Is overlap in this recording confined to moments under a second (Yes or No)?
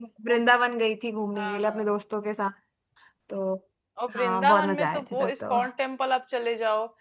No